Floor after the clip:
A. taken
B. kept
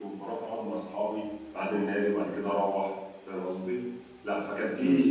B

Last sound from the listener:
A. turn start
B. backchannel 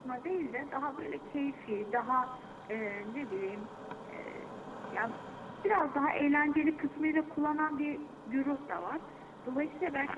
B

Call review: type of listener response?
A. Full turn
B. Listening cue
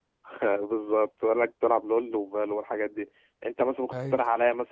B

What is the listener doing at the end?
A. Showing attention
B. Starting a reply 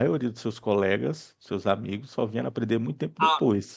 B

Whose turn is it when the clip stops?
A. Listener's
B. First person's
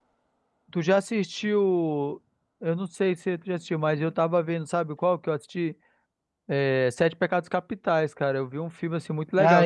A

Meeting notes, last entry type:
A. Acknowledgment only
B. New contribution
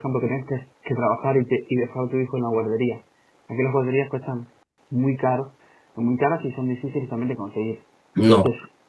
B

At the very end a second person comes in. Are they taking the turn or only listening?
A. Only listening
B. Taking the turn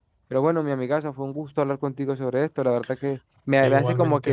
A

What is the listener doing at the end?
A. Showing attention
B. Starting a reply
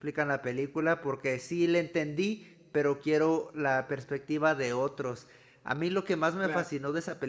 A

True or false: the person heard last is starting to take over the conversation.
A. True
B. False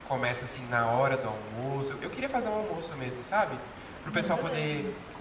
B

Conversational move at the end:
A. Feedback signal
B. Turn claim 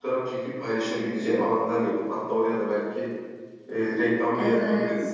B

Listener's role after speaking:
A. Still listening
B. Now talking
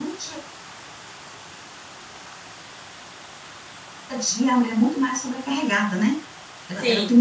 A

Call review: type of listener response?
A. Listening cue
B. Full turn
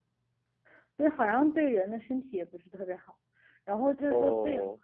A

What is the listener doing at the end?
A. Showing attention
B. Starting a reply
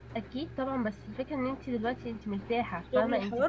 B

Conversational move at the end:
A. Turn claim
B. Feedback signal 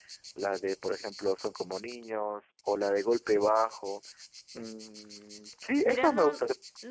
A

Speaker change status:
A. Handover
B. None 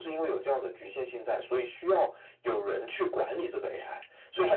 B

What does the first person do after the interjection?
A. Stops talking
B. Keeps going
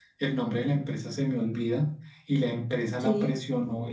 B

